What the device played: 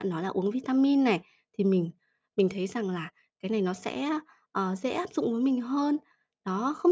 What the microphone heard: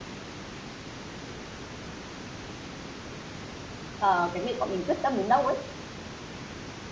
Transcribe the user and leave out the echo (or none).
Ờ, cái việc bọn mình quyết tâm đến đâu ấy,